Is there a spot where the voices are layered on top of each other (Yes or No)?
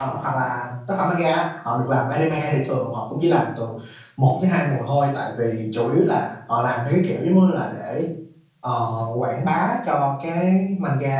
No